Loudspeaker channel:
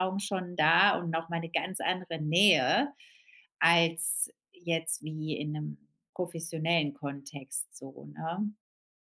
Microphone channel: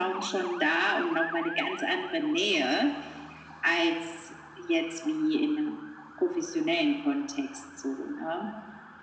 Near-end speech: none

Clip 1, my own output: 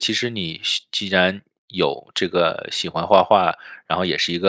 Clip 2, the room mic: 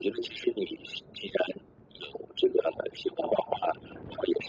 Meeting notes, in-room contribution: none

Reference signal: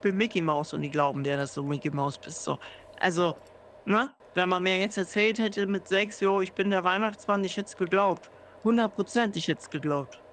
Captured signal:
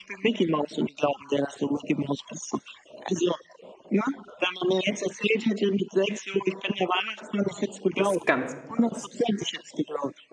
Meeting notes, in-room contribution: present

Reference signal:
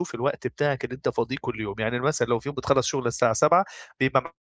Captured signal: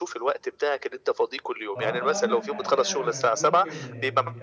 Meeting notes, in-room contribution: present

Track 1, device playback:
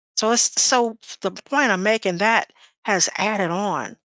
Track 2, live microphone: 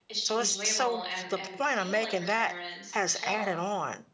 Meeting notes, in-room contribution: present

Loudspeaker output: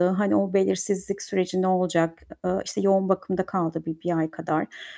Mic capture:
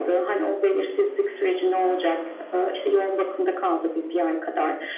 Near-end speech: none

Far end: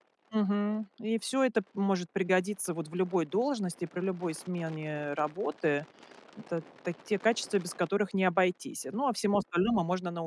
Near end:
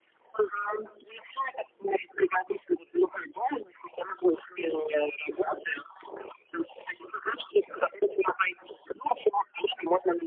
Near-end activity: none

